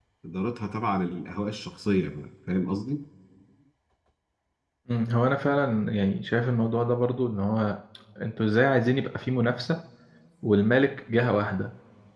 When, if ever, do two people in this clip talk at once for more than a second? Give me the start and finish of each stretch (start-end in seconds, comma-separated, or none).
none